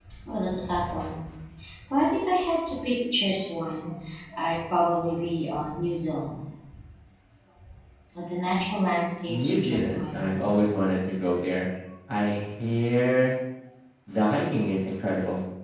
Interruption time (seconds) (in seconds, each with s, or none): 9.3 s